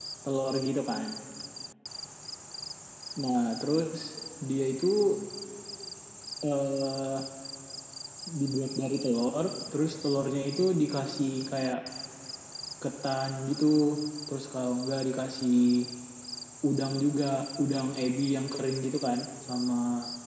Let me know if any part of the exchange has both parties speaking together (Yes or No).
No